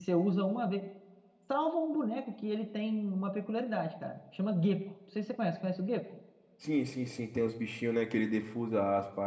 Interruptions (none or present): none